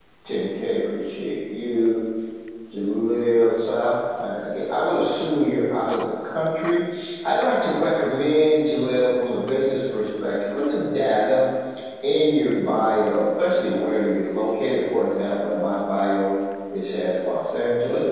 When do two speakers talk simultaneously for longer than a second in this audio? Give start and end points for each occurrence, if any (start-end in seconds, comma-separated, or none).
none